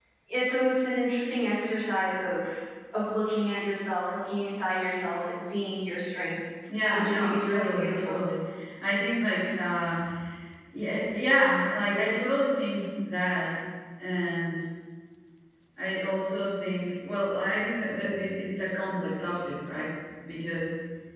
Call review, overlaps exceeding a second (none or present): present